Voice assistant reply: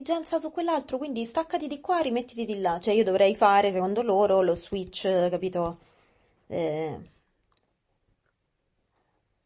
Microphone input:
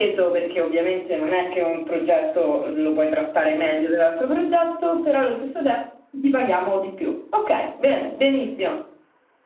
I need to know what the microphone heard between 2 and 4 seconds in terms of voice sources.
user only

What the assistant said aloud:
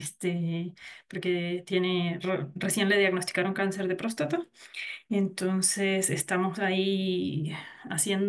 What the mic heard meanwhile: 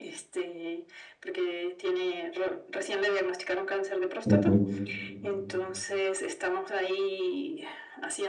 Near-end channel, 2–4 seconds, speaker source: echo only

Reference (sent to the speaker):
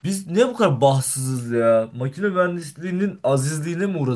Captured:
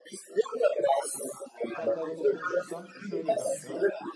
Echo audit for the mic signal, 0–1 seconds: echo only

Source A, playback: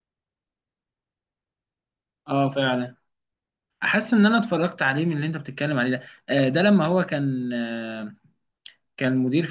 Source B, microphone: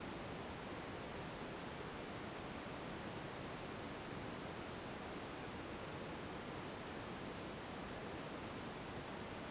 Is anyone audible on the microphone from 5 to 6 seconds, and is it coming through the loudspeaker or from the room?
neither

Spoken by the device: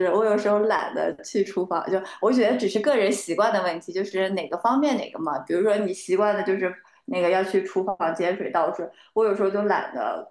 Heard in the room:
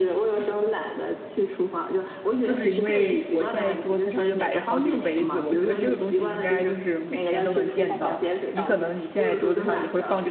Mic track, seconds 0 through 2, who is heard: echo only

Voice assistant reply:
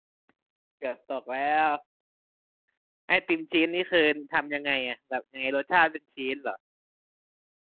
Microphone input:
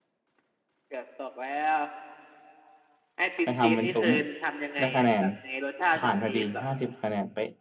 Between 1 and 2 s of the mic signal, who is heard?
echo only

